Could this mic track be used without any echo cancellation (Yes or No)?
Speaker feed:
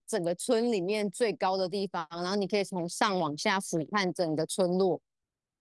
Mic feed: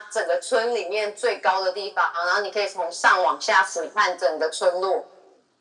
No